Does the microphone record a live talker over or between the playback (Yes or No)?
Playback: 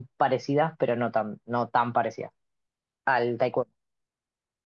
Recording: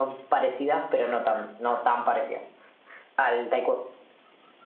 No